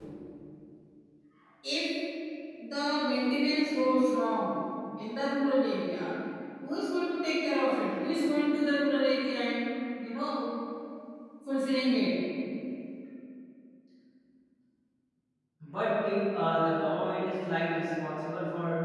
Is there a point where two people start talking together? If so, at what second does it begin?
none

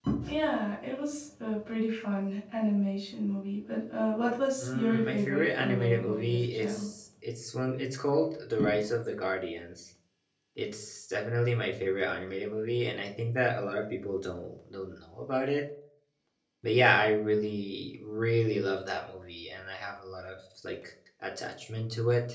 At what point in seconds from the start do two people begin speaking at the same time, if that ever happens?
4.6 s

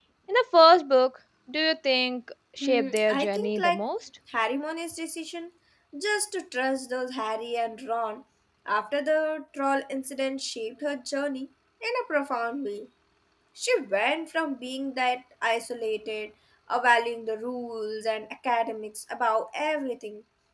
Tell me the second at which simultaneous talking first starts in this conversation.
2.6 s

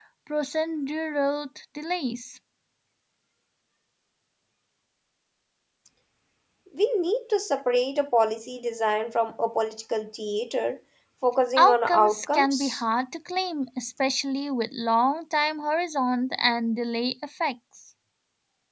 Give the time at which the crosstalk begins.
11.6 s

